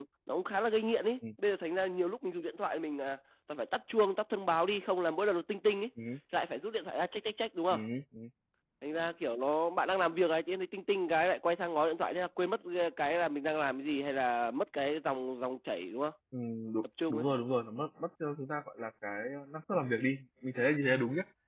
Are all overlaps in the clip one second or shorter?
Yes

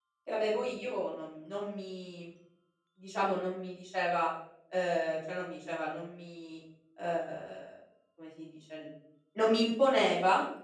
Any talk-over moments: No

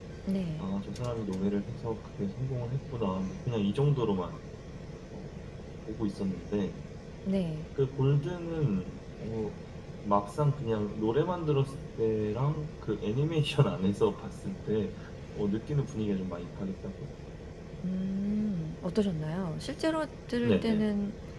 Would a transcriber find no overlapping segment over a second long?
Yes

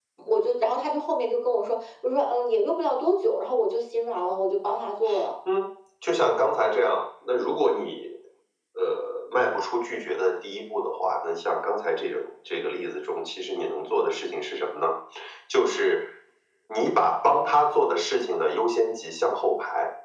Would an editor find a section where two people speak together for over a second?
No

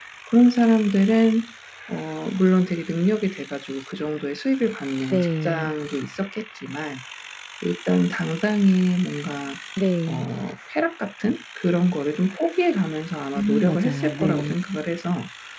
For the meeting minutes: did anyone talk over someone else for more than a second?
Yes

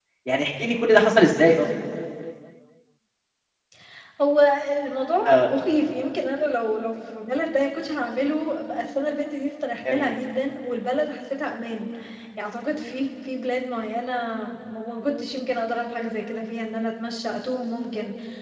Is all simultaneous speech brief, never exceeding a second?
Yes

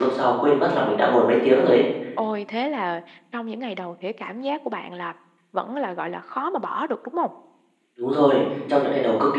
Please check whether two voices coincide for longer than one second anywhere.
No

